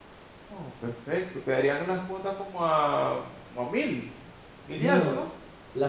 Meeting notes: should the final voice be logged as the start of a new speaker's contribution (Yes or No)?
Yes